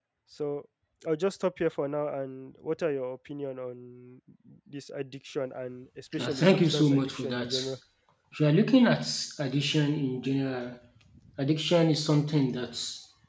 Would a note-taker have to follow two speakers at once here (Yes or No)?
Yes